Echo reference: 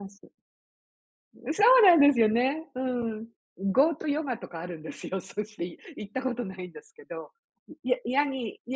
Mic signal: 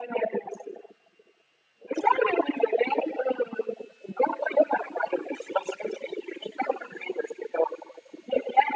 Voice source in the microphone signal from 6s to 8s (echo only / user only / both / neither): echo only